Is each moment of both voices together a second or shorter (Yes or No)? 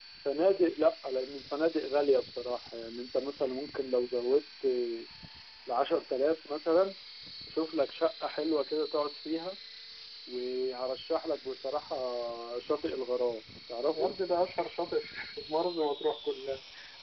Yes